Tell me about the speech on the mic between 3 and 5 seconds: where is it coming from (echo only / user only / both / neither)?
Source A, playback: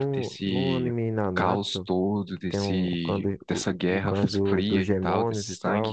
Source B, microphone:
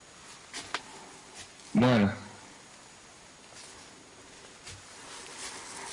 neither